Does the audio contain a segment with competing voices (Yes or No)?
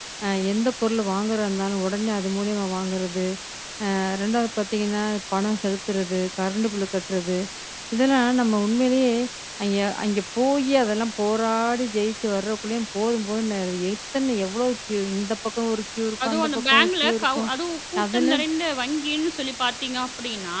Yes